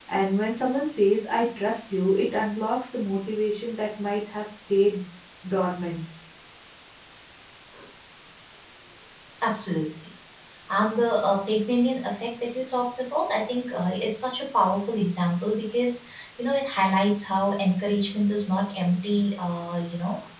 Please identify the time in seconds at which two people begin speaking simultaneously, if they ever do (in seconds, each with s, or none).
none